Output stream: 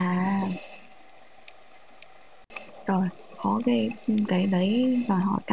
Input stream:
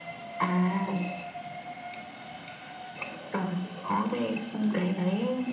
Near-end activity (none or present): none